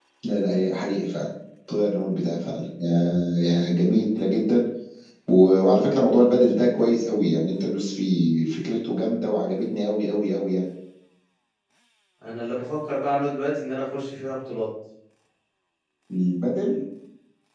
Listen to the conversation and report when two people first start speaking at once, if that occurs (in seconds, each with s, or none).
none